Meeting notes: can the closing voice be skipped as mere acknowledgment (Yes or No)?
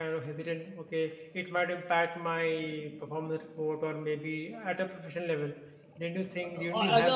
No